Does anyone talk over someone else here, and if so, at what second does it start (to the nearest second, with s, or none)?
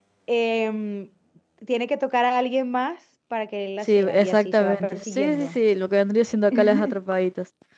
4 s